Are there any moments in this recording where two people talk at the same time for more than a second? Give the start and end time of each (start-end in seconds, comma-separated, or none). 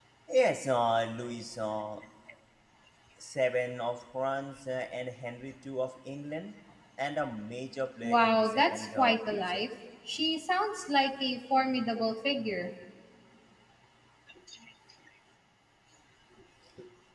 8.0-9.6